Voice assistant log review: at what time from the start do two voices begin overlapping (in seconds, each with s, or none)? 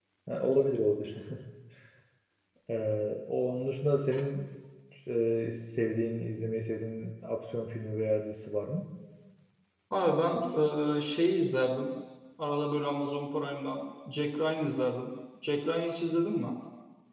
none